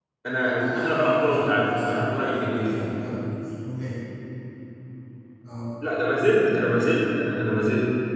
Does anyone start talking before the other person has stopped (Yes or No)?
Yes